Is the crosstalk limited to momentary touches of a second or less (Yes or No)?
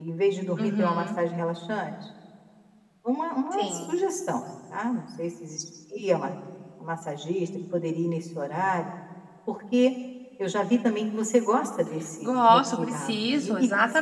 No